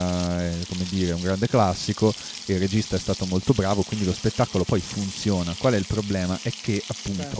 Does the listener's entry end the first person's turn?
No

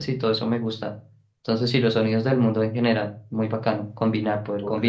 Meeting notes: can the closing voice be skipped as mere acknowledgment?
No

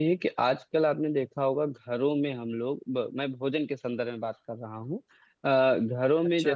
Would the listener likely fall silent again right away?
Yes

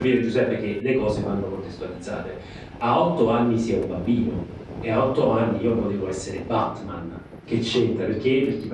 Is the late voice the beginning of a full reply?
No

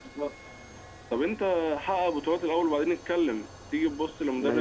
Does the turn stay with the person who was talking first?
No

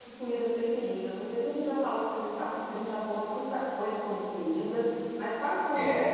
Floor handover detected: Yes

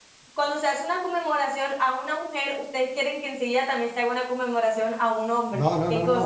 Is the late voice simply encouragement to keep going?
No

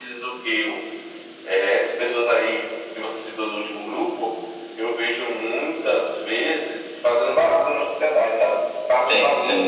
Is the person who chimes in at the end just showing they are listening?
No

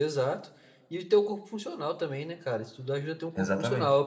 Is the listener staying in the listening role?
Yes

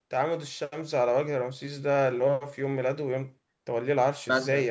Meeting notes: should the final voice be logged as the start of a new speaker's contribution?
Yes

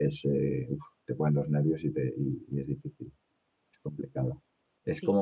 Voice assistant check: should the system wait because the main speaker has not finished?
Yes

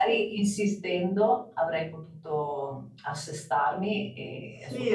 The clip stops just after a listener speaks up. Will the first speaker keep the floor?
No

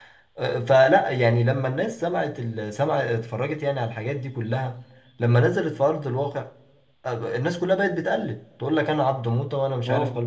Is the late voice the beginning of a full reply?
No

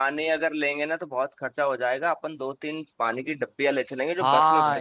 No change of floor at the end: No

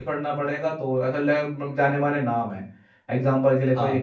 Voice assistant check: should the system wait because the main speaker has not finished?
Yes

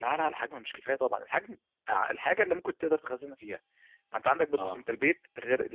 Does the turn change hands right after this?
No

